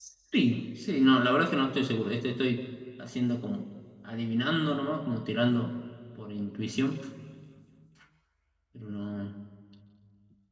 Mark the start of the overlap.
none

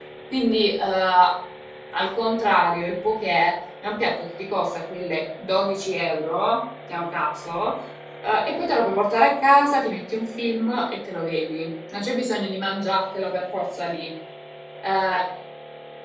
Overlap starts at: none

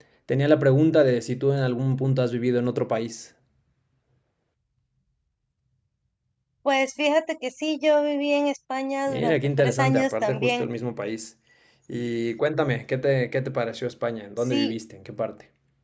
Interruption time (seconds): 9.1 s

